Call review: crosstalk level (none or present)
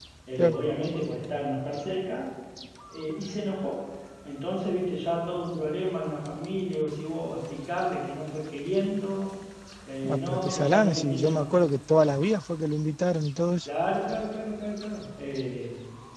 present